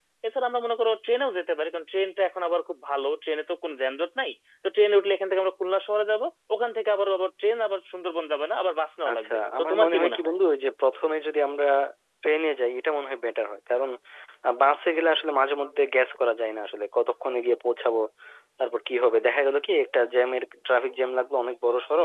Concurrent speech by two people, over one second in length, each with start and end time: 9.1-10.3

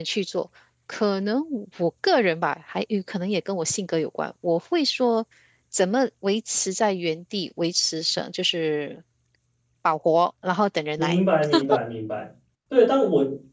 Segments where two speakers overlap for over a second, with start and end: none

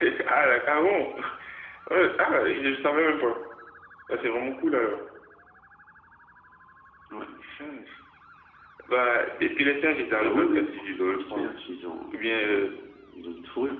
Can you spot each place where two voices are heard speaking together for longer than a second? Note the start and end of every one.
10.1-11.4

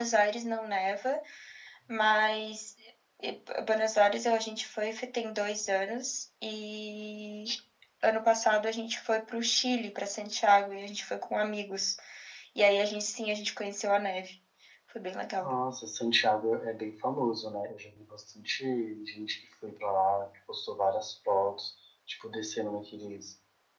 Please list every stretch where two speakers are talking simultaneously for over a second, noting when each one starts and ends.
none

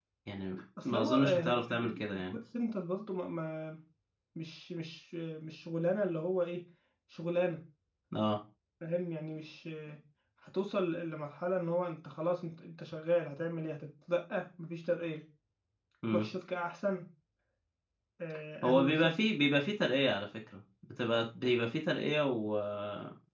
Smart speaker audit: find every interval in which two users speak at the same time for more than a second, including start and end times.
0.8-2.4

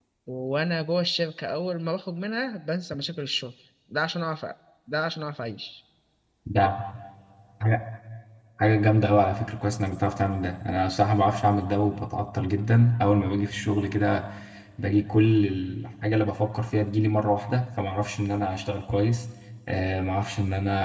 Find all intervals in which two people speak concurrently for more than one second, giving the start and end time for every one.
none

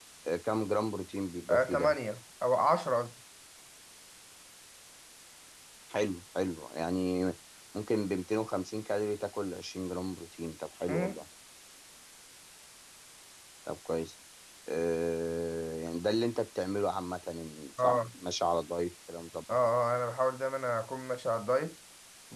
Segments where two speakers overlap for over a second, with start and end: none

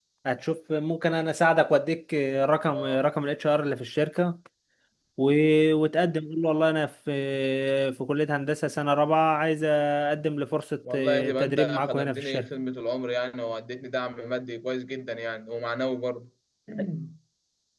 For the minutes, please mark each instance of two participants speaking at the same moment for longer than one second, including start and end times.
10.9-12.5

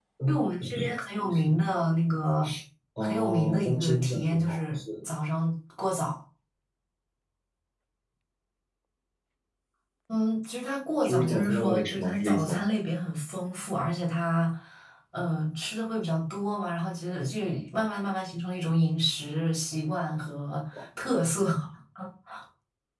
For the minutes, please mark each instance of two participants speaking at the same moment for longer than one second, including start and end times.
3.0-5.0, 11.0-12.6

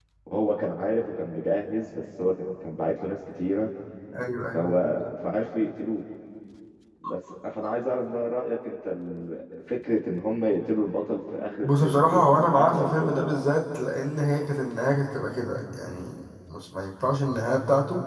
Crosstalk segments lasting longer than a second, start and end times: 11.6-13.3

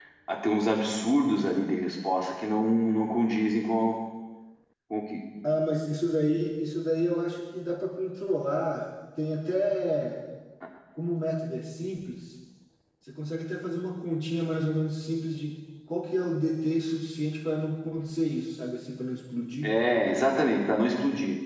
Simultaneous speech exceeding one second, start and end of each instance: none

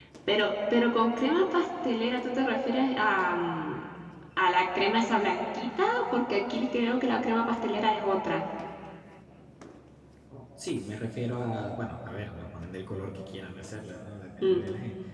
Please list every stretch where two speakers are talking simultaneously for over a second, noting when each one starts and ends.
none

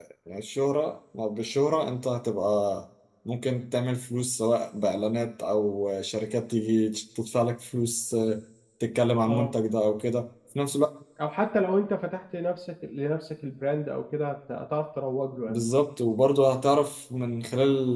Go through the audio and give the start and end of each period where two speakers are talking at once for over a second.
none

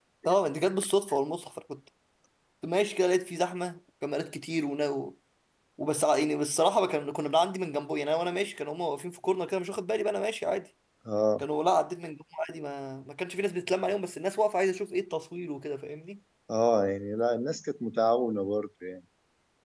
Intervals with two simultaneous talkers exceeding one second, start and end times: none

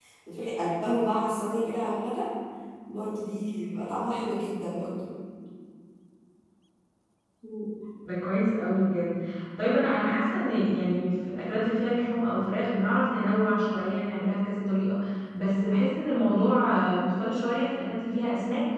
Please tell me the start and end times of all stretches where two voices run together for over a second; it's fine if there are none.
none

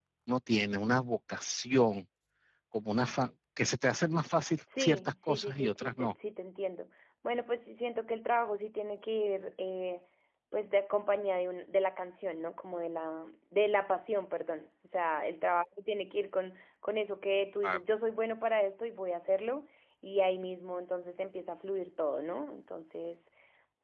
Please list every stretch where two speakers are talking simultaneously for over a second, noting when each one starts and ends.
4.8-6.1

